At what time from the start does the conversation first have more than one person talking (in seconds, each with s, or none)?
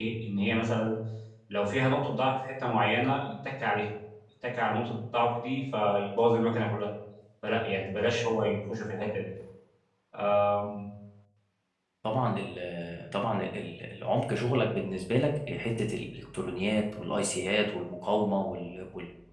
none